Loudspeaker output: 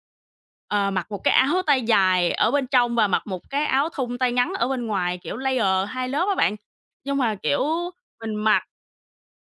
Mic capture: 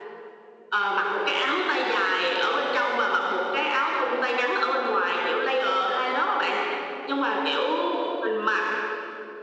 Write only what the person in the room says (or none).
none